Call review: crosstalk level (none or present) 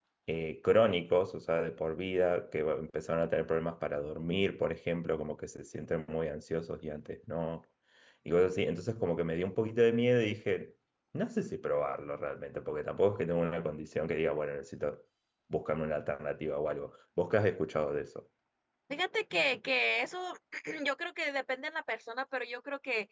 none